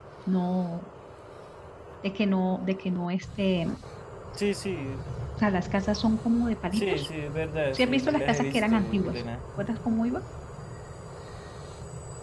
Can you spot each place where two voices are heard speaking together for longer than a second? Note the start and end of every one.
7.7-9.2

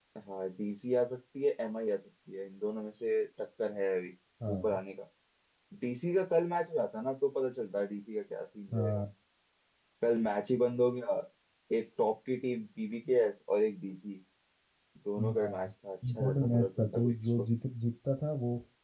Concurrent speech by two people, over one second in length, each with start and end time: 16.1-17.4

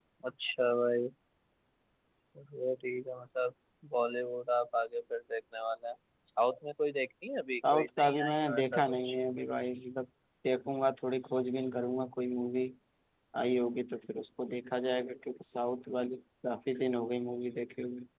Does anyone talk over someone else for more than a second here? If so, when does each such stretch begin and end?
7.7-9.2

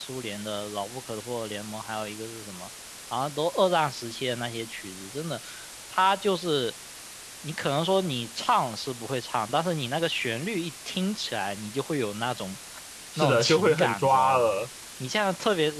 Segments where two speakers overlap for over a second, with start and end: 13.2-14.6

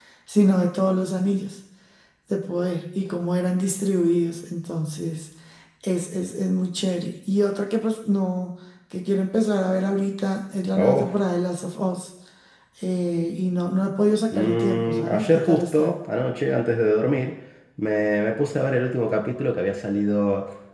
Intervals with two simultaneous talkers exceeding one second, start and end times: 14.3-15.9

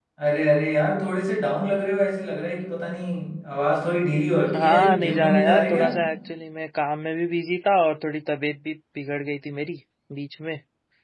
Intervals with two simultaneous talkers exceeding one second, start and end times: 4.5-5.8

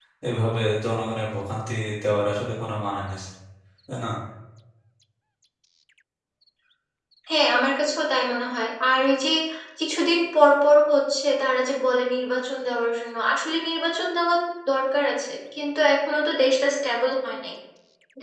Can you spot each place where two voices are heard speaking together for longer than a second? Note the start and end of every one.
none

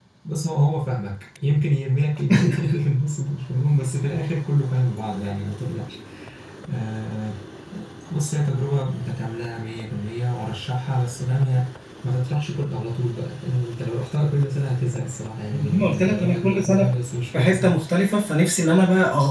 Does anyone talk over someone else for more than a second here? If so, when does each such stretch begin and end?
15.5-16.9

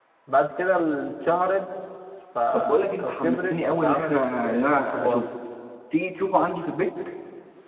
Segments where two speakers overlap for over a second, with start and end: 2.5-5.2

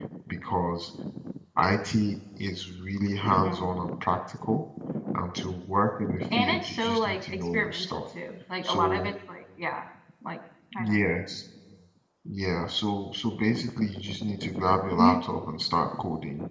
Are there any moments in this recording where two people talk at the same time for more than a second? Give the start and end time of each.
6.3-8.0

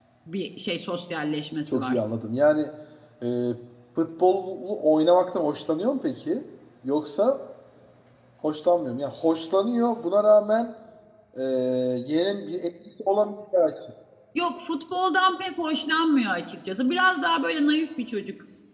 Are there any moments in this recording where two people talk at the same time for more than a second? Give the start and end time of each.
none

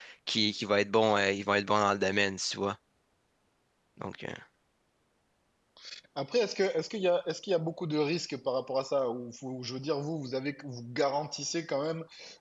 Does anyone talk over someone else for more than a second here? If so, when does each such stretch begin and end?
none

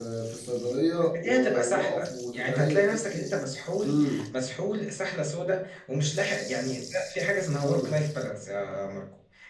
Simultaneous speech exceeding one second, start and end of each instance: 1.1-3.3

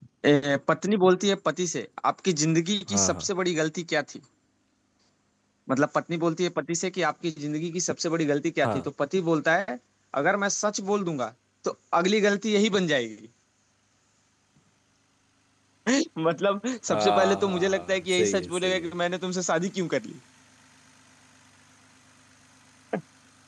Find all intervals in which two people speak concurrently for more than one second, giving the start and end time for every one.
16.9-18.8

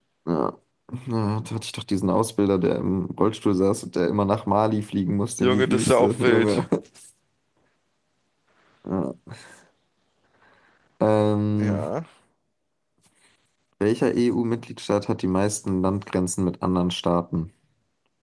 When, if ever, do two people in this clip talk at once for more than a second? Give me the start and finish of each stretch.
5.4-6.6

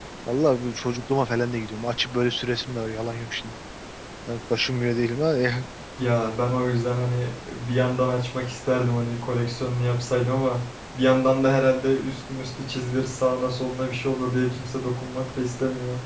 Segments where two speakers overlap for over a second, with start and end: none

